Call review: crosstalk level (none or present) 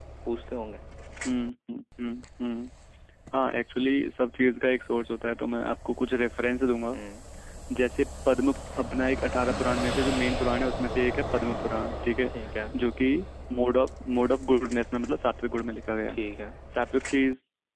none